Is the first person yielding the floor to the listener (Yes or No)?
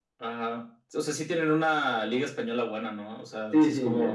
Yes